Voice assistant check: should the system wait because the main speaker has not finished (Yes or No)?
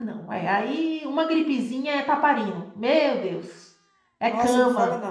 No